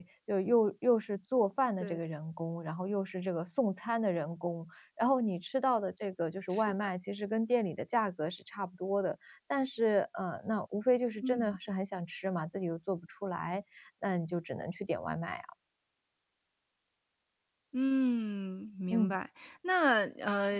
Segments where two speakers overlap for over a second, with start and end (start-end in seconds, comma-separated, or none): none